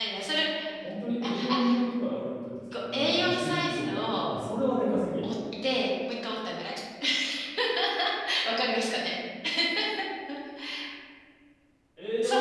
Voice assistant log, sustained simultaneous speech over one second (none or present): present